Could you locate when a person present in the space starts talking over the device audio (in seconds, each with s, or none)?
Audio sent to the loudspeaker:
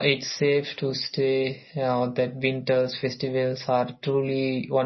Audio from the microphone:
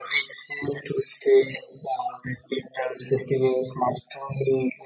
none